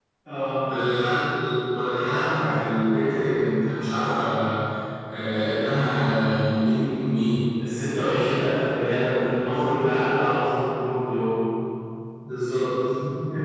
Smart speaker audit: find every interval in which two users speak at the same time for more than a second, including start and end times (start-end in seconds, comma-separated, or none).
none